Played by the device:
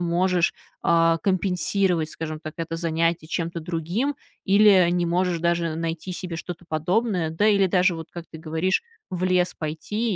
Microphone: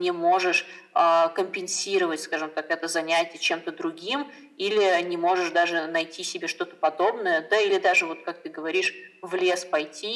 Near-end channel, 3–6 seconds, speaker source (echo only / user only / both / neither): echo only